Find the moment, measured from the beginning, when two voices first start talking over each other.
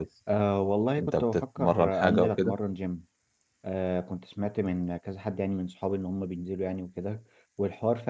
1 s

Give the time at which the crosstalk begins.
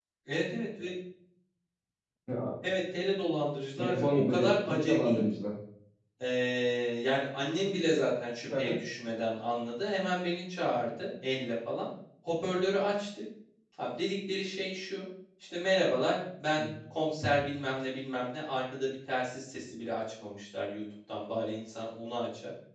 4 s

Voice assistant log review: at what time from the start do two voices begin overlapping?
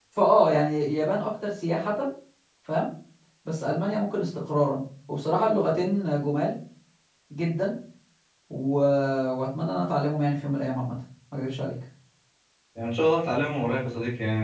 none

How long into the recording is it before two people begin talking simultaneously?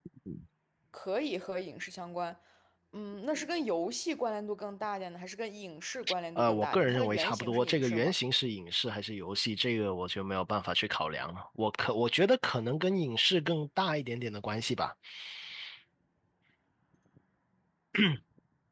6 s

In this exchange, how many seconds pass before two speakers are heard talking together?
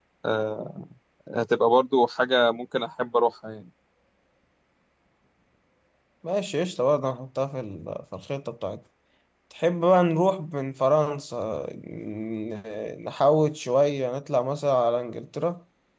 none

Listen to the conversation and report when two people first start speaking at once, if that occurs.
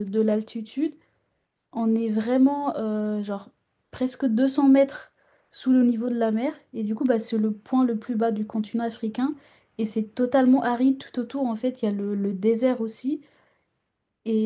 none

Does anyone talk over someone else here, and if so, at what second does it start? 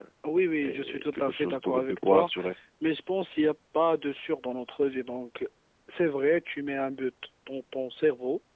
1 s

